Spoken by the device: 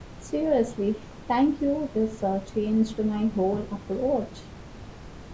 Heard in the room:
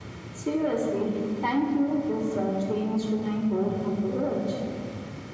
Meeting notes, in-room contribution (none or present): none